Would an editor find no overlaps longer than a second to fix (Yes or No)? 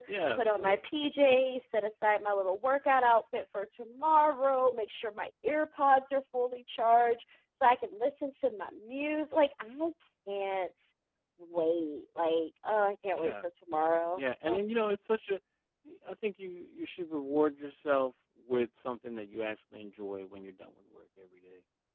Yes